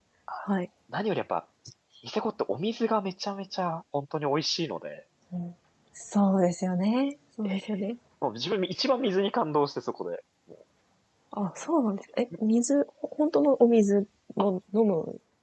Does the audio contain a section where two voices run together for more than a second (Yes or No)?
No